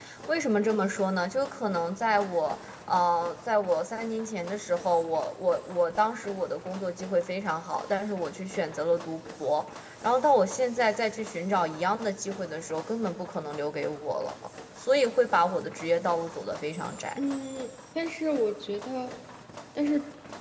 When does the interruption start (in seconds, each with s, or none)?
none